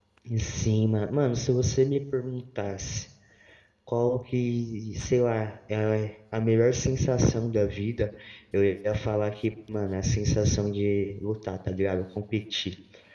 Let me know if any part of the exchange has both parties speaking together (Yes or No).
No